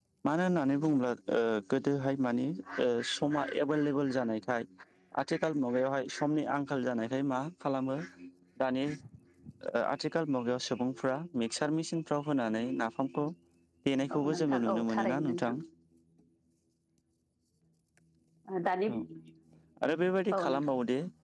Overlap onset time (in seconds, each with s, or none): 14.2 s